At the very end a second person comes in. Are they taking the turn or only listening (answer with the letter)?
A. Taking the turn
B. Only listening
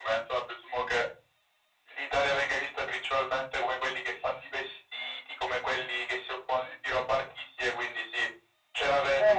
A